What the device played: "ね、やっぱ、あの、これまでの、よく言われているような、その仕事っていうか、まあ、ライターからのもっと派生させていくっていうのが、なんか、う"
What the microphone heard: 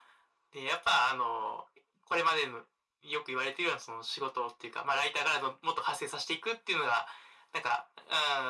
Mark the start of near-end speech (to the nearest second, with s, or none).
none